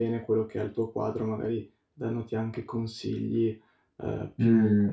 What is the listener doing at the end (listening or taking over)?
taking over